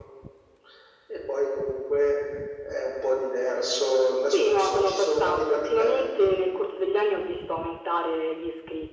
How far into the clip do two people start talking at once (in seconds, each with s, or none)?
4.2 s